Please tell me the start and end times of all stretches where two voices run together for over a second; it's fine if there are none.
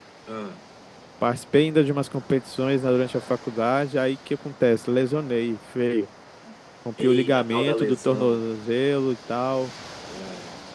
7.0-8.4

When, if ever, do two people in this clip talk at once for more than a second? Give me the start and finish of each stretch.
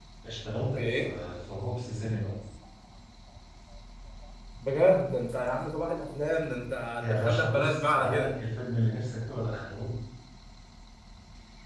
7.0-8.3

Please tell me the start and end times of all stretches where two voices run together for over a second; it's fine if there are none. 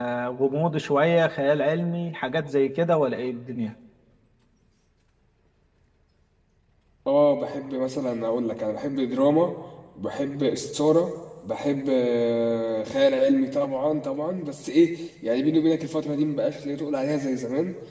none

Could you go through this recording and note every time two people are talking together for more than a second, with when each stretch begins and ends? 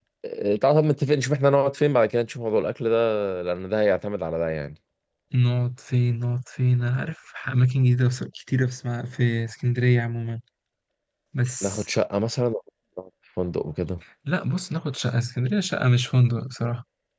none

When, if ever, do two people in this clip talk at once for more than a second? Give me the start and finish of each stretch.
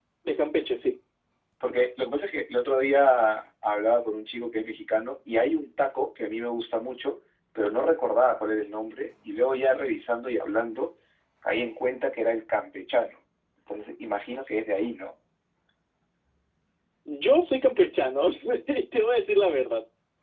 none

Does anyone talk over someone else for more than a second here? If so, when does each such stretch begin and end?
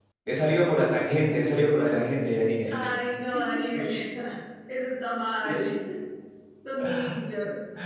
none

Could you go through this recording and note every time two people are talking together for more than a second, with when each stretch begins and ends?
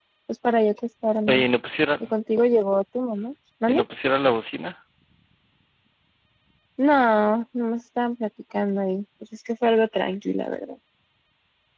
none

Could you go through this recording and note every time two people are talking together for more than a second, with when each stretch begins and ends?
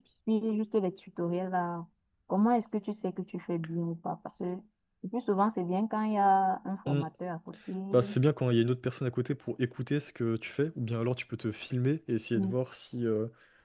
none

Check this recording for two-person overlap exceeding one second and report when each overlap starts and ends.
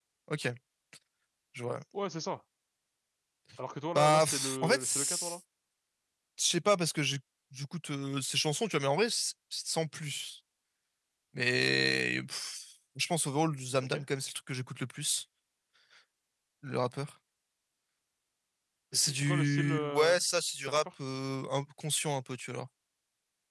4.0-5.4, 18.9-20.2

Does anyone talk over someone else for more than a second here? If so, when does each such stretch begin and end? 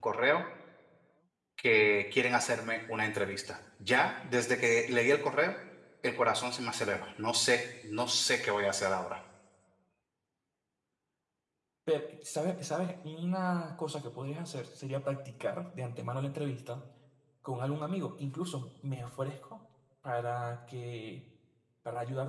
none

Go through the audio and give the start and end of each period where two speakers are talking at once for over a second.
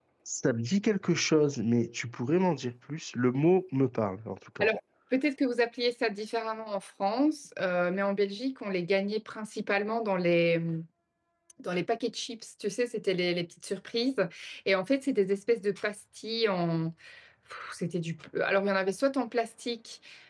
none

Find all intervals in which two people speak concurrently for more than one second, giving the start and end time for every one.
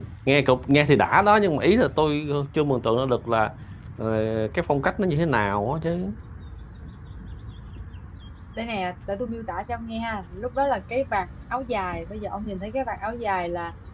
none

